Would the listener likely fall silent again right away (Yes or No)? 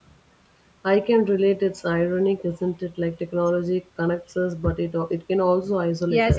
No